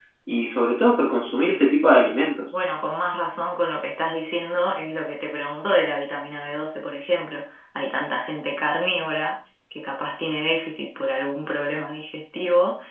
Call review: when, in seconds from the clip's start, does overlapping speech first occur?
none

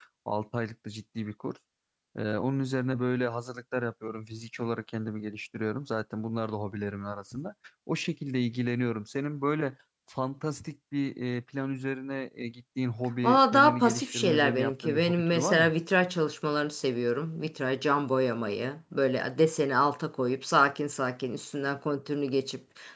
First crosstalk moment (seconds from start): 13.2 s

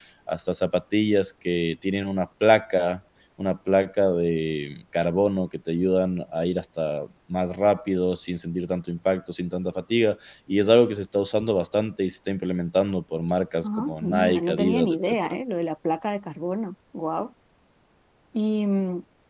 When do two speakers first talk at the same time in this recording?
13.6 s

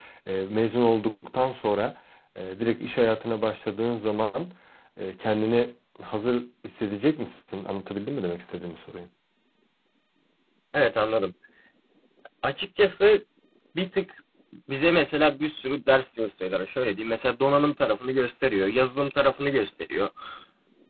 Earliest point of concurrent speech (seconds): none

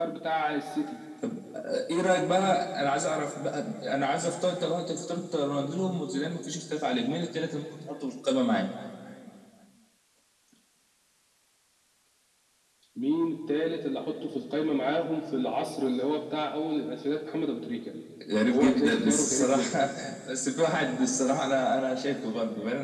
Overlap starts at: 18.5 s

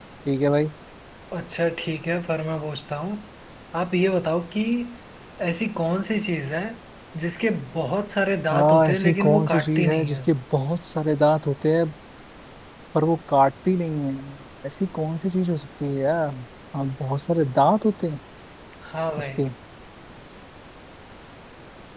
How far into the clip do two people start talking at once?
8.5 s

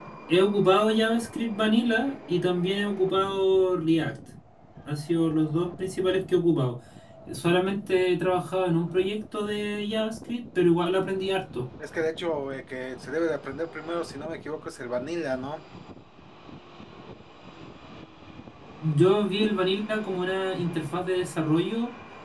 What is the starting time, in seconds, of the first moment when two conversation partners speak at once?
none

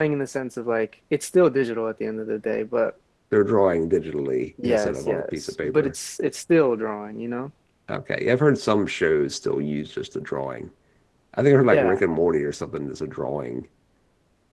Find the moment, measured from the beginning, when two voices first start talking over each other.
4.6 s

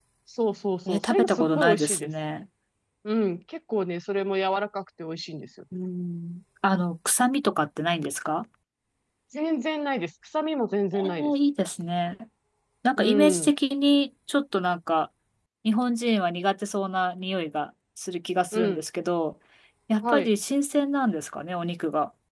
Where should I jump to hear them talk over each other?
0.9 s

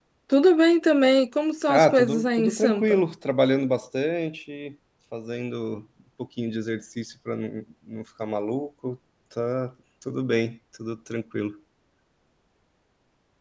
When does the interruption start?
1.7 s

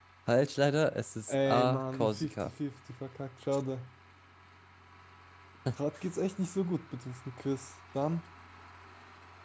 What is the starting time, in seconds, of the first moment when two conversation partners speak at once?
1.3 s

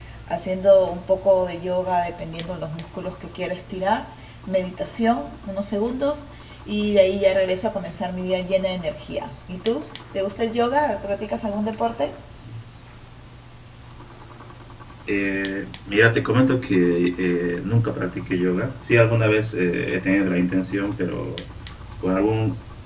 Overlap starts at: none

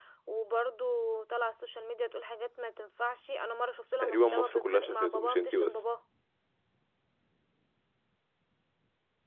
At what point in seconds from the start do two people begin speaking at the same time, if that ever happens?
4.0 s

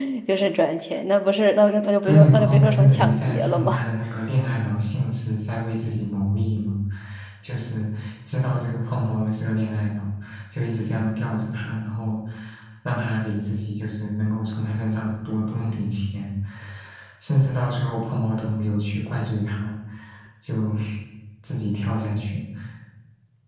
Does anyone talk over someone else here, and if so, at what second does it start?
2.0 s

